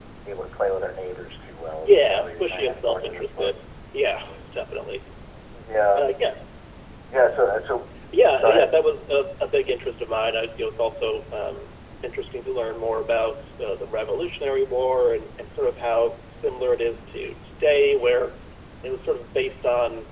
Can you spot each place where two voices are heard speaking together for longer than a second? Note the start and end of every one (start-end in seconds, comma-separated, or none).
1.8-3.5